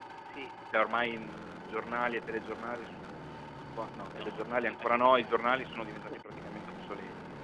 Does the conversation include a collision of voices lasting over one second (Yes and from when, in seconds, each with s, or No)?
Yes, from 4.2 s